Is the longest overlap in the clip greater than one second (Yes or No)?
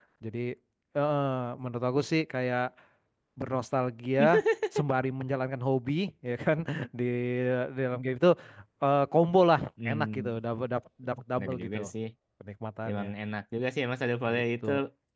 No